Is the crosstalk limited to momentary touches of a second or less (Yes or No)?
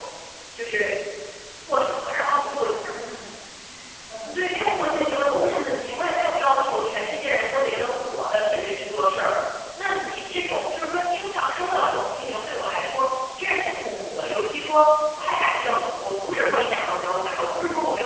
No